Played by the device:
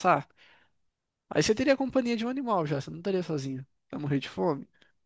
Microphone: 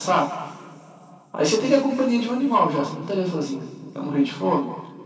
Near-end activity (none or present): none